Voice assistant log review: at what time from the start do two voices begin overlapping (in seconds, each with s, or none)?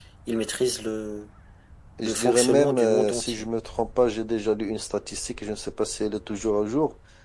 2.0 s